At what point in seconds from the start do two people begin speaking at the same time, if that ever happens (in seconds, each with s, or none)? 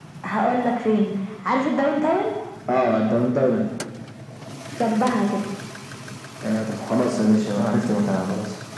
none